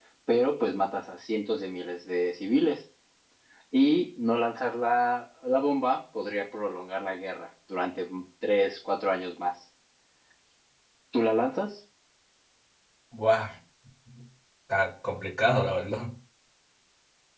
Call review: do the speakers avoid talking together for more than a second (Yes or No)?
Yes